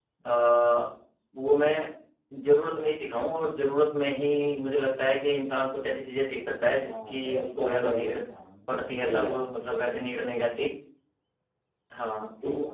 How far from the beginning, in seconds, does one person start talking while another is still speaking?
7 s

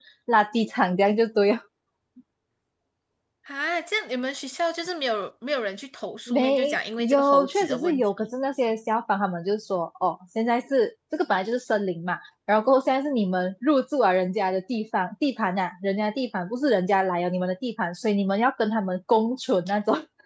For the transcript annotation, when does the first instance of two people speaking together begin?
6 s

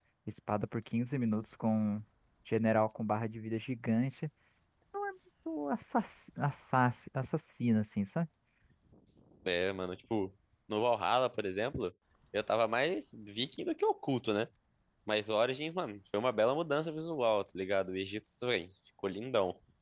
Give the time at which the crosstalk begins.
none

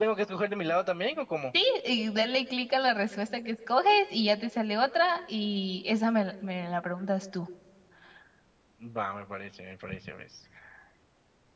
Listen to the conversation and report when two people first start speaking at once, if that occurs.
none

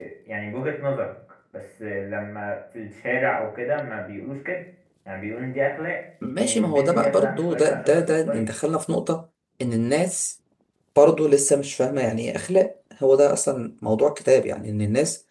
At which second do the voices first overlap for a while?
6 s

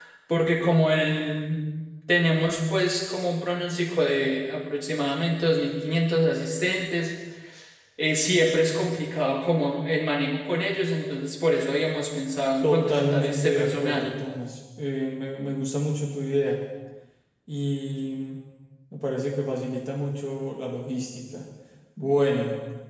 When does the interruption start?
13 s

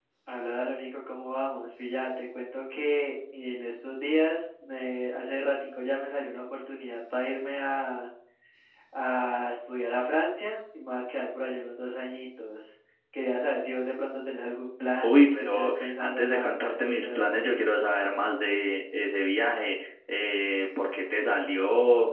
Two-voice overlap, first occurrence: 15 s

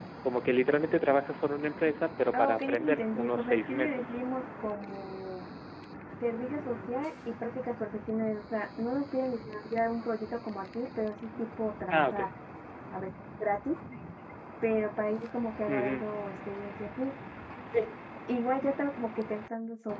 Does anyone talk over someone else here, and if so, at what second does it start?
2 s

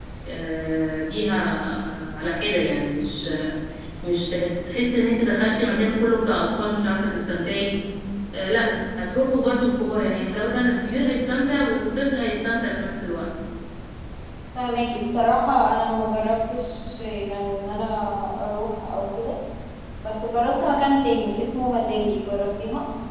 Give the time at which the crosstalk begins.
none

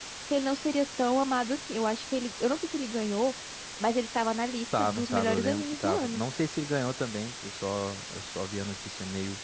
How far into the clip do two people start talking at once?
5 s

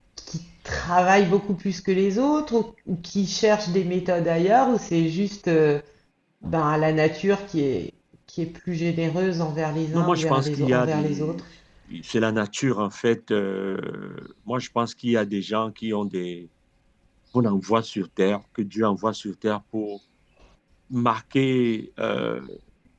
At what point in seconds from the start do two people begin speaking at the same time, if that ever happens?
10 s

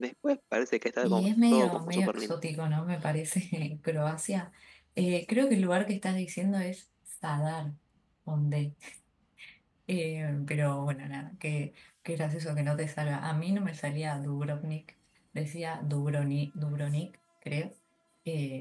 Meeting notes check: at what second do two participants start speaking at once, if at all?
1 s

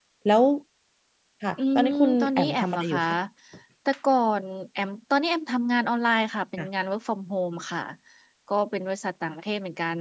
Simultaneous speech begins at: 2 s

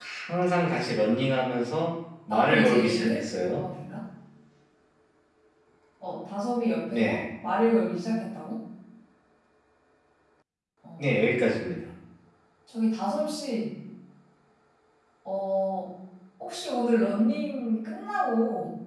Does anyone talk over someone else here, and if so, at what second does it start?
2 s

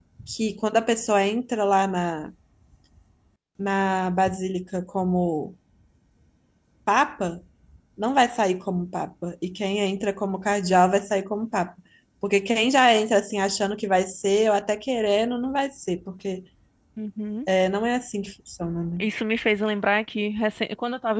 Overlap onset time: none

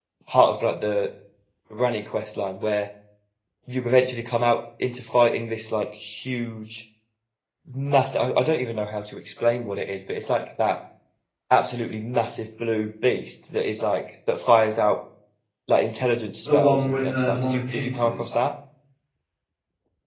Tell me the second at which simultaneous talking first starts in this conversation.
16 s

